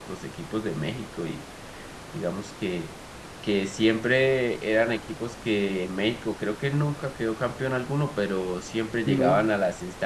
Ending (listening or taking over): listening